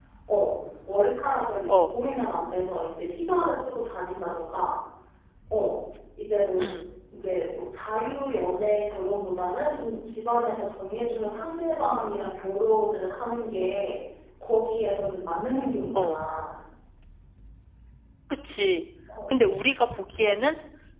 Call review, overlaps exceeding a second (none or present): none